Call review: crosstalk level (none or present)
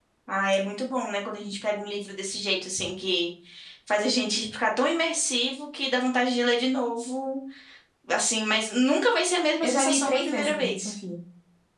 present